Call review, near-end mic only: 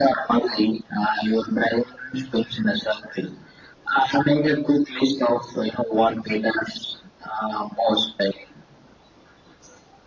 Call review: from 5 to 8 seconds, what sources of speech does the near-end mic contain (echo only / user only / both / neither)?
echo only